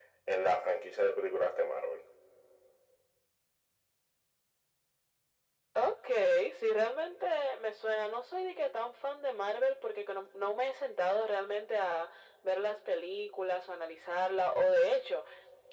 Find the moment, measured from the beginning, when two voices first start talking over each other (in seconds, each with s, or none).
none